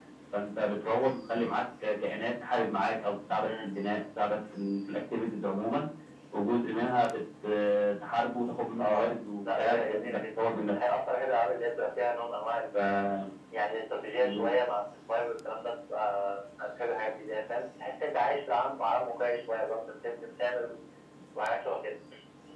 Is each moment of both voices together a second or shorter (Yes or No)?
No